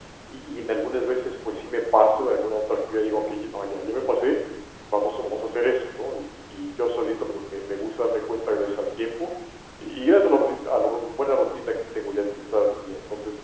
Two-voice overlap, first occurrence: none

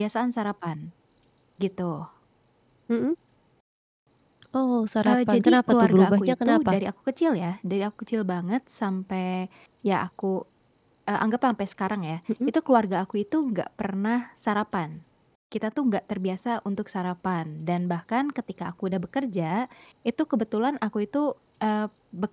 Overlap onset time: 5.0 s

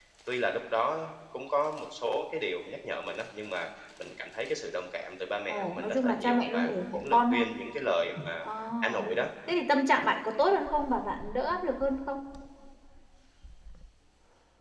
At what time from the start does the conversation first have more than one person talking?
5.5 s

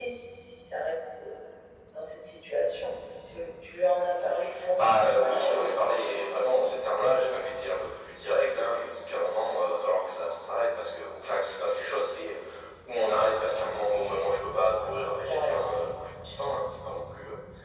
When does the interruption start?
4.8 s

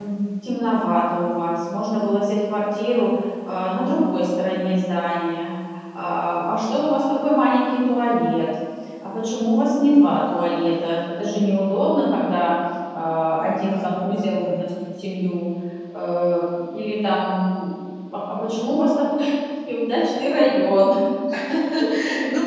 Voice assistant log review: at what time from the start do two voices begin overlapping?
13.4 s

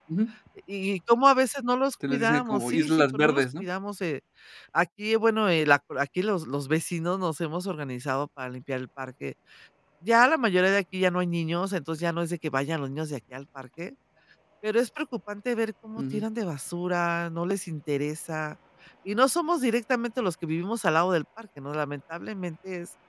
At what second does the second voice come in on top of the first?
2.1 s

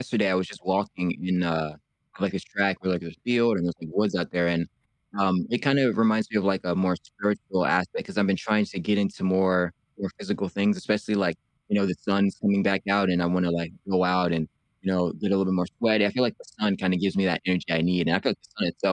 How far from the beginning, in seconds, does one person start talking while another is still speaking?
none

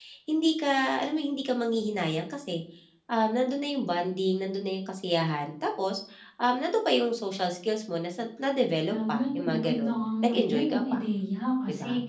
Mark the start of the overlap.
8.9 s

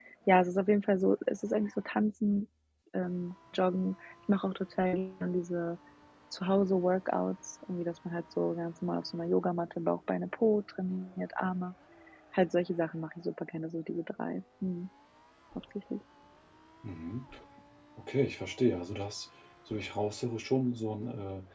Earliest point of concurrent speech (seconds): none

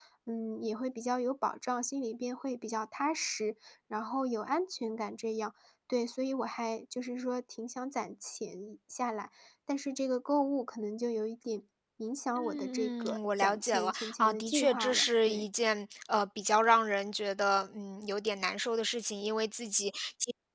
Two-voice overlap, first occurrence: 12.4 s

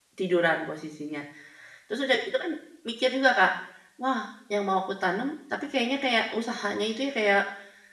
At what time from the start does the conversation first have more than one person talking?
none

